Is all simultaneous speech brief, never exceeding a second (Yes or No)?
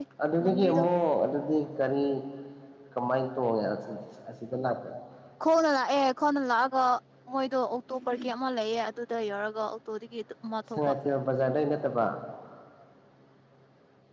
Yes